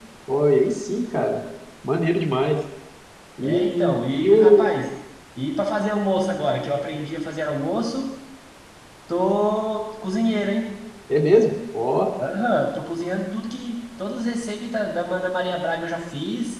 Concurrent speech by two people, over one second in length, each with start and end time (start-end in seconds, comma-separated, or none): 3.4-4.7